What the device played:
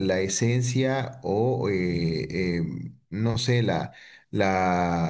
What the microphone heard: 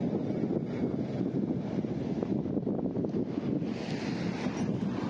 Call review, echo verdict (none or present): none